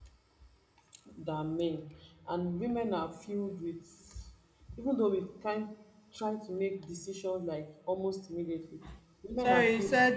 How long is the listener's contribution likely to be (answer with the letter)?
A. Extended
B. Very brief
A